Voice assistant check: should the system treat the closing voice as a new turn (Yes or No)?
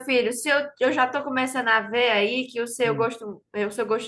No